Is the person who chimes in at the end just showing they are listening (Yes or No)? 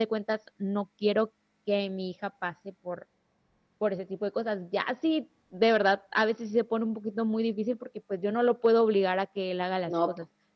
Yes